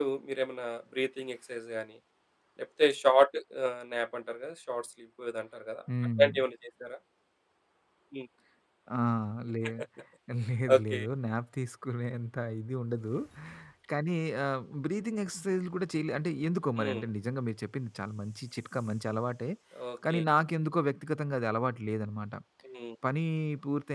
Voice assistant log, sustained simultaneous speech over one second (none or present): none